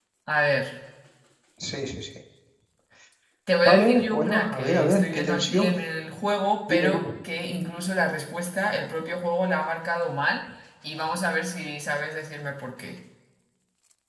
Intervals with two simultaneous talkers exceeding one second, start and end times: 3.6-5.7

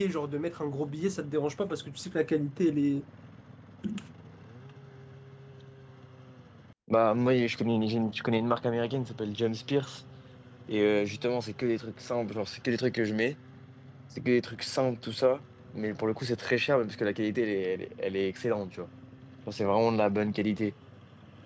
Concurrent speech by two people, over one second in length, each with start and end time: none

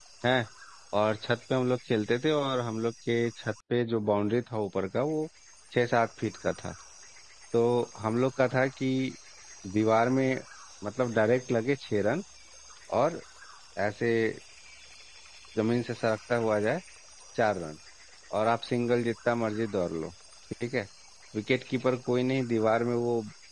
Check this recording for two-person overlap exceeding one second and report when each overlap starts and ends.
none

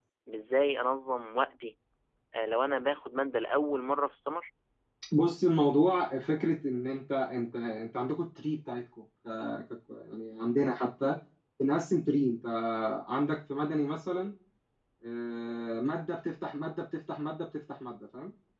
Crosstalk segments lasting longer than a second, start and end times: none

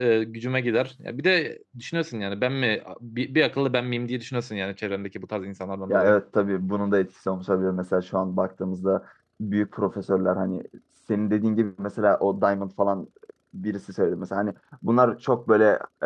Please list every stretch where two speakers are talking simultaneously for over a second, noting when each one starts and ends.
none

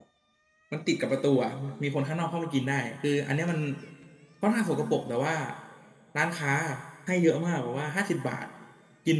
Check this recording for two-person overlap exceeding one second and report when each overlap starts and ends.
none

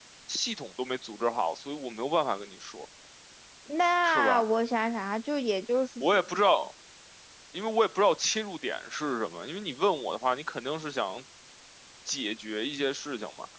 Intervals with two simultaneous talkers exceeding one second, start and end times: none

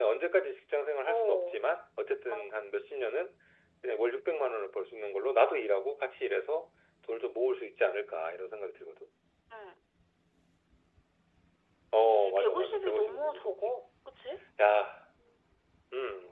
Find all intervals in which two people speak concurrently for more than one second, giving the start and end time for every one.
12.1-13.7

